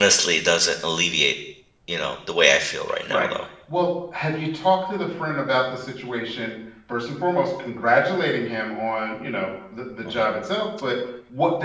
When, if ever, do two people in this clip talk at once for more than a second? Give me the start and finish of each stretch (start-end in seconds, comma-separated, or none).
none